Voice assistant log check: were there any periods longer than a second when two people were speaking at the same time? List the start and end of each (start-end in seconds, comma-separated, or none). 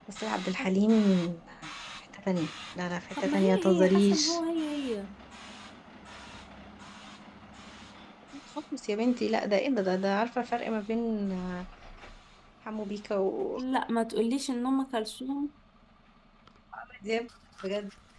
3.2-4.4